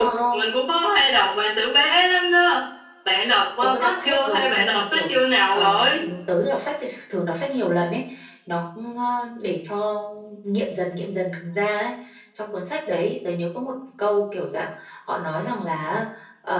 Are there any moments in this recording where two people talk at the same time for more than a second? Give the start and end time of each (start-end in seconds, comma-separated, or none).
3.6-5.8